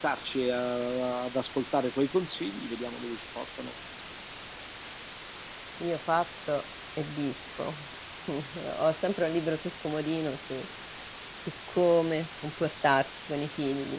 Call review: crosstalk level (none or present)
none